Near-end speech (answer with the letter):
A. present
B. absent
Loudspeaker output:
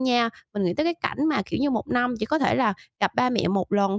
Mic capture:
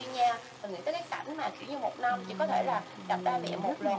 A